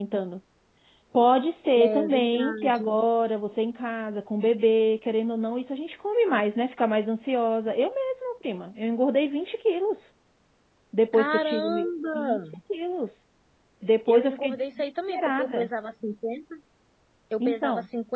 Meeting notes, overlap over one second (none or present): present